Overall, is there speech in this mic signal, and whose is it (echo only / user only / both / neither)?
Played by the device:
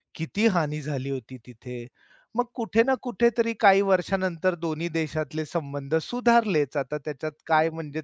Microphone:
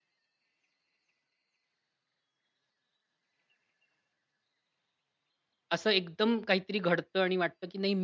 user only